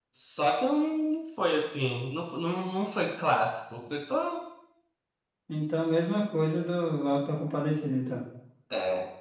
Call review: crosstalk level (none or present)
none